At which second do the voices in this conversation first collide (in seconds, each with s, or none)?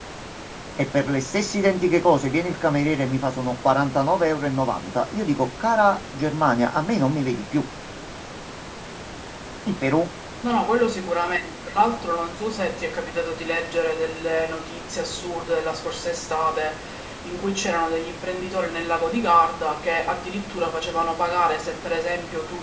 none